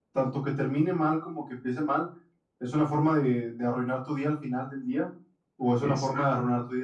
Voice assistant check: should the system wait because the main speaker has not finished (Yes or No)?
Yes